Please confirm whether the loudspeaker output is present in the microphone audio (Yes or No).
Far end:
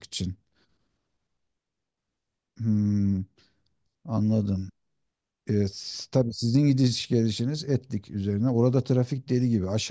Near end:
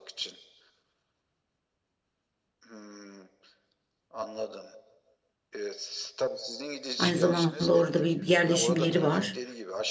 Yes